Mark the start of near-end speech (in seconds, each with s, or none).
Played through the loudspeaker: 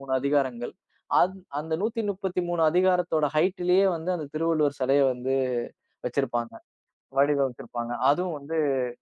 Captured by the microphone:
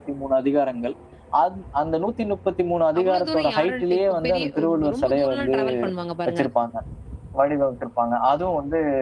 3.0 s